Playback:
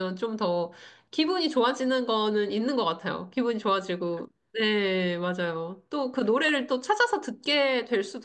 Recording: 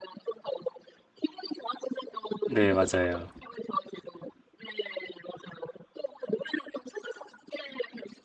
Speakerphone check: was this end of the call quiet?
No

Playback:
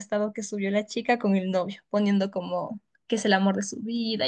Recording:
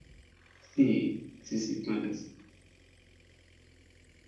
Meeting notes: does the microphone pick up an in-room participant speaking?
Yes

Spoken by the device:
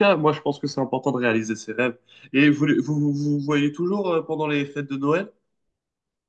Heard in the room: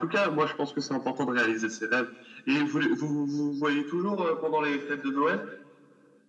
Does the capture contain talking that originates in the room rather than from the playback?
No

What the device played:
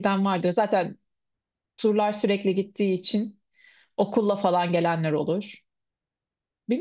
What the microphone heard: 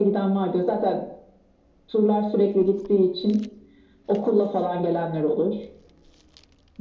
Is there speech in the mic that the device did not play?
No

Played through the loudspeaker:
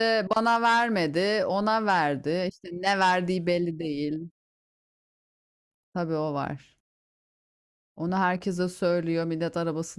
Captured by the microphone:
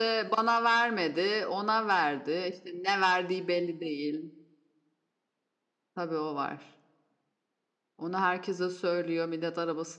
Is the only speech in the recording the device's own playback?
Yes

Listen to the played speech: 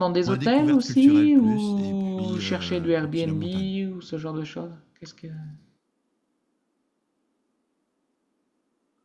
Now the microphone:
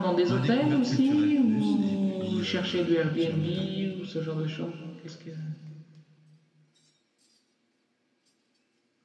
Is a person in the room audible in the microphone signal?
No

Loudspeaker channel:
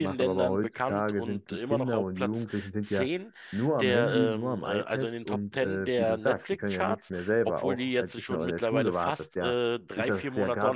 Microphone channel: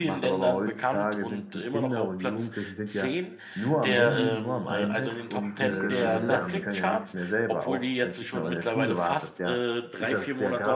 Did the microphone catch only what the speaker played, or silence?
No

